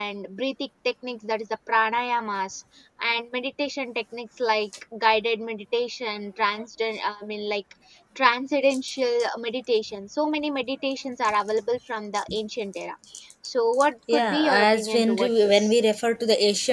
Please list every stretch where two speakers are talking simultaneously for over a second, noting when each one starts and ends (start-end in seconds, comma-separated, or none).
14.1-15.7